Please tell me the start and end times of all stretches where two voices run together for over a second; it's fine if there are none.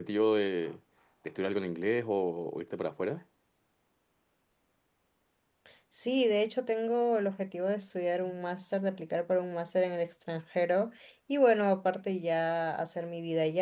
none

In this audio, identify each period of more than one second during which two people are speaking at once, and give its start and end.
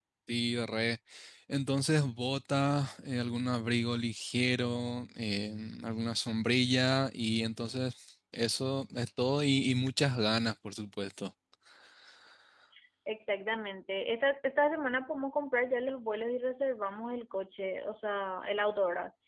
none

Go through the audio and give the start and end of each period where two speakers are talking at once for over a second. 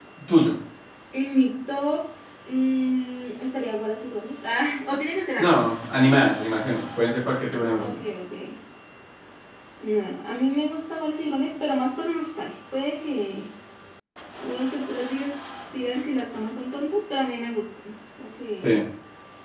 none

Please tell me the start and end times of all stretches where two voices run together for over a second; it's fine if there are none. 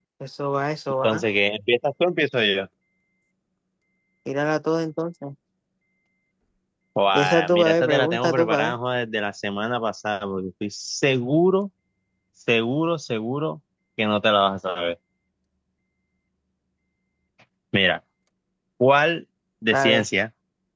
7.1-8.7

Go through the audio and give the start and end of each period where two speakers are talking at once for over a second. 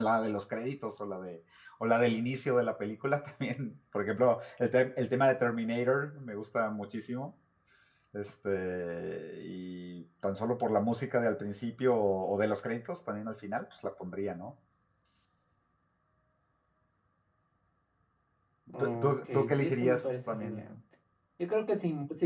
18.8-20.7

